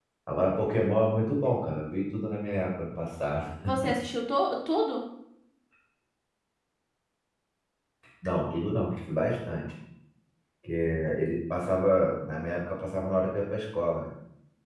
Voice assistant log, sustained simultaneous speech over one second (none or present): none